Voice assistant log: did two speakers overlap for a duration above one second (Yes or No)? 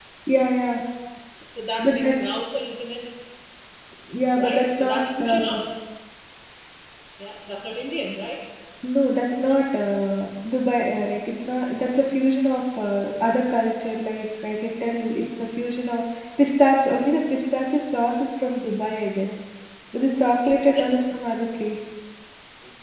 Yes